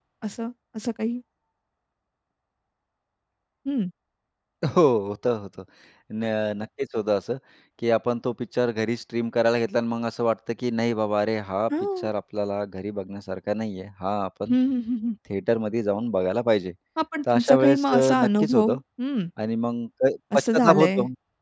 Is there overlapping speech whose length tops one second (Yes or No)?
Yes